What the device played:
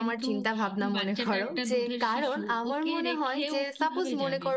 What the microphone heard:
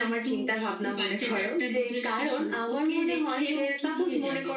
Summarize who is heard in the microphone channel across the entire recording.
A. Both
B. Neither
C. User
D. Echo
D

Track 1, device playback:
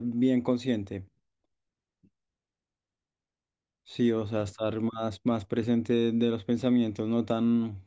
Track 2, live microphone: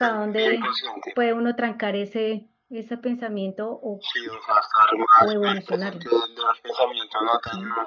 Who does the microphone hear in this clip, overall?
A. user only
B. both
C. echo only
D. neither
B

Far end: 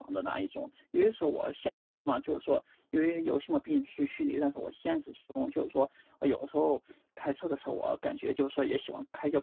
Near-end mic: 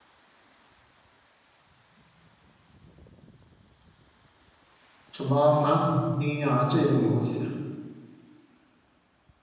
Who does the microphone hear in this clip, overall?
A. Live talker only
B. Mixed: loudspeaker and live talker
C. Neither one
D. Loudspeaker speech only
A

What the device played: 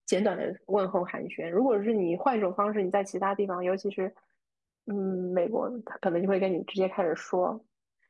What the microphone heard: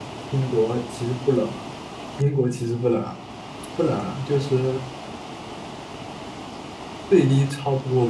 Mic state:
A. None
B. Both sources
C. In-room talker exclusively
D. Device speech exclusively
C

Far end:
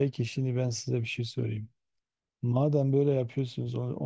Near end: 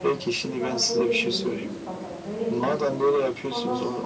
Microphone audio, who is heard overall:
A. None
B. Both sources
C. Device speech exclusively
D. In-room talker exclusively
B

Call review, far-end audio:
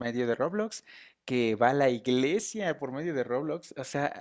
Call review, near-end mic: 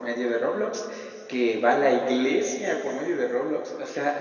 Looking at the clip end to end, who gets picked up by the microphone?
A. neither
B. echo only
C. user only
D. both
B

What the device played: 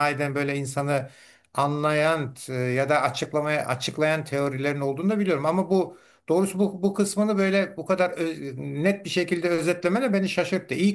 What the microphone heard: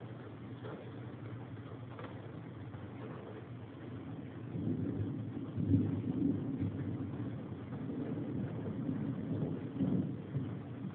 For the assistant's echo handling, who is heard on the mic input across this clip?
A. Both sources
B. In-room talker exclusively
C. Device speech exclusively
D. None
D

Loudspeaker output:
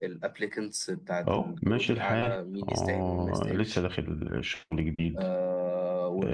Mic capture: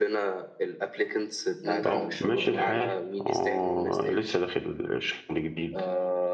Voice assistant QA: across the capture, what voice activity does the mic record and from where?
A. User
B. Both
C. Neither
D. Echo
B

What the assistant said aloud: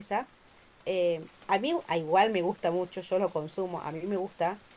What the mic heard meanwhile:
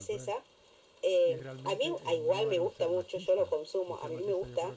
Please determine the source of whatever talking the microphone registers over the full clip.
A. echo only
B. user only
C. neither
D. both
D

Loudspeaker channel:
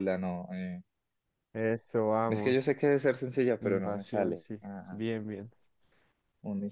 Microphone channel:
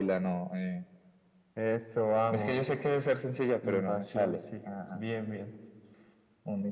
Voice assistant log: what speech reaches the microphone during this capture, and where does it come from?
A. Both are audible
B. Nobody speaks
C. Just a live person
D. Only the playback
D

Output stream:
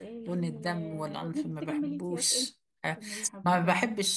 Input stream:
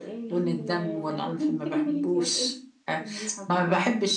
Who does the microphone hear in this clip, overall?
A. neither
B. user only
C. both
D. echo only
D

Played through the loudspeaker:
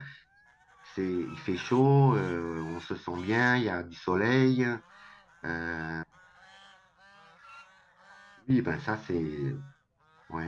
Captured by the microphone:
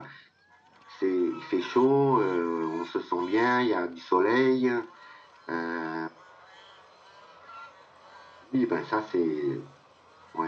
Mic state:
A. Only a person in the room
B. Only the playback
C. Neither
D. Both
B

